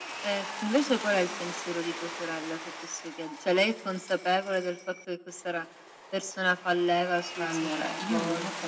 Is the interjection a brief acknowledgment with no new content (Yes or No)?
No